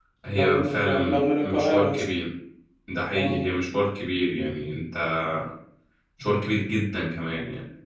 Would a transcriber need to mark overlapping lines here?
Yes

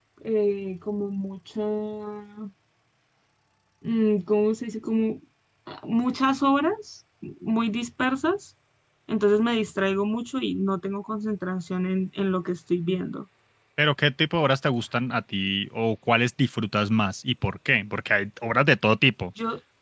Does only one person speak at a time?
Yes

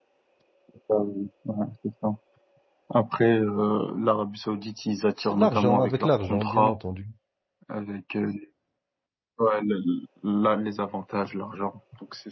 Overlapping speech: Yes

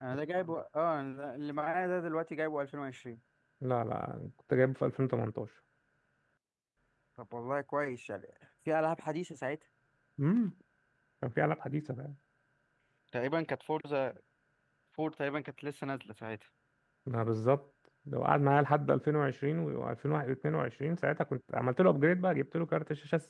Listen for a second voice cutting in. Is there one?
No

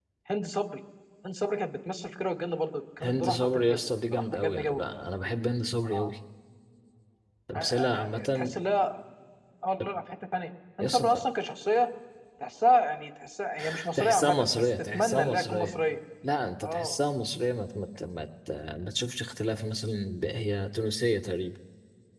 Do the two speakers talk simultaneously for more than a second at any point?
Yes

